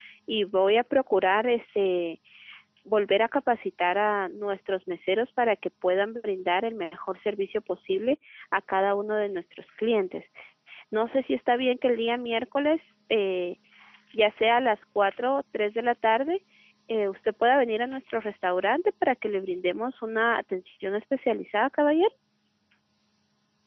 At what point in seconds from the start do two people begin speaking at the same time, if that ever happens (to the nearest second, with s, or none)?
none